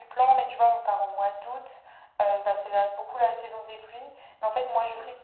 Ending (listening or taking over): listening